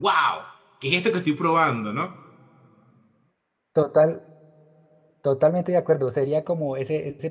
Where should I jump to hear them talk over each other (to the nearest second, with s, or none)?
none